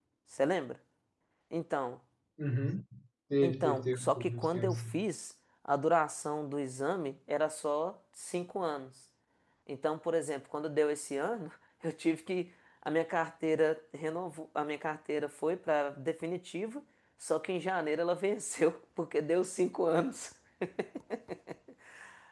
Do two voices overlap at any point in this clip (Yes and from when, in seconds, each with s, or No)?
Yes, from 3.4 s